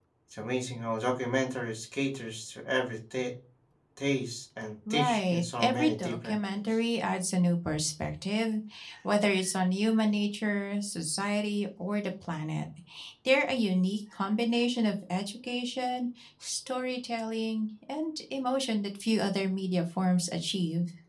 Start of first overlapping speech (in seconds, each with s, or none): 4.9 s